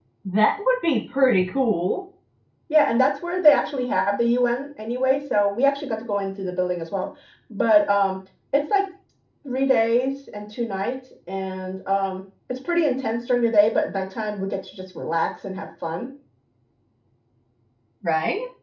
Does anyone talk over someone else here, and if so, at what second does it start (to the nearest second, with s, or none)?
none